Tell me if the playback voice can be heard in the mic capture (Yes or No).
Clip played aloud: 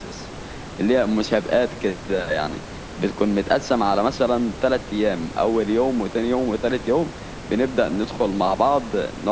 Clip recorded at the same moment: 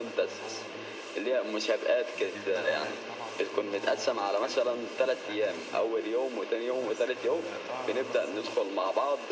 Yes